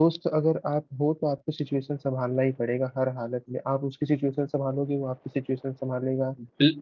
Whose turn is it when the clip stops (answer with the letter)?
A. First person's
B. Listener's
B